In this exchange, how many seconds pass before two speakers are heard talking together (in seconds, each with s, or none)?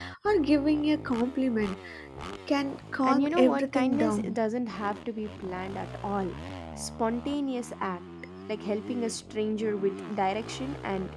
3.0 s